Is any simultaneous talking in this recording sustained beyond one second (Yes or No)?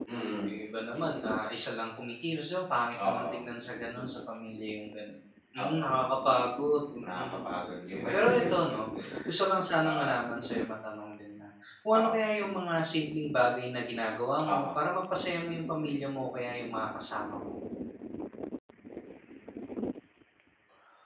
No